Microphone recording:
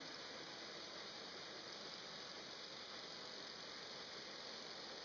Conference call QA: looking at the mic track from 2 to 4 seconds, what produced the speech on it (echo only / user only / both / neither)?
neither